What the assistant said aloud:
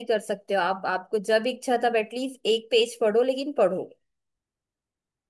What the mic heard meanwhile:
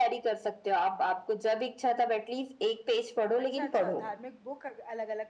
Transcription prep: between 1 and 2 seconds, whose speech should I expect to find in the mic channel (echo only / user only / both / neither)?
echo only